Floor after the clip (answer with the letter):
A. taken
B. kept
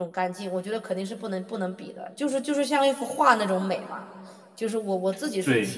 A